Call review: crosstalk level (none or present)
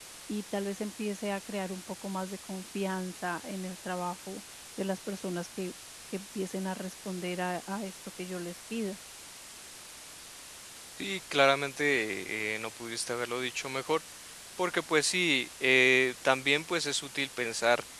none